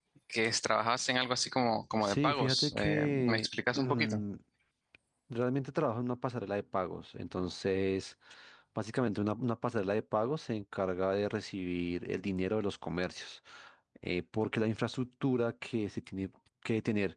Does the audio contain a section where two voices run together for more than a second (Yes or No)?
Yes